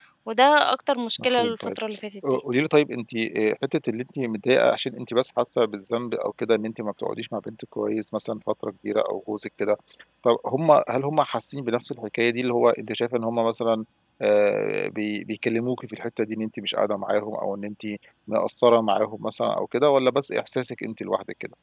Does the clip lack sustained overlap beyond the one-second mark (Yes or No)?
Yes